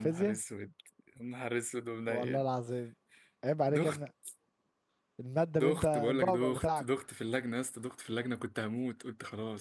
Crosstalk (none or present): present